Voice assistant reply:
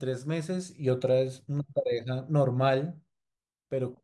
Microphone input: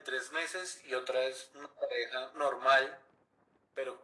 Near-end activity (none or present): none